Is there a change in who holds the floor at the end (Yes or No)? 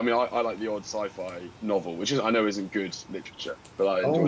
Yes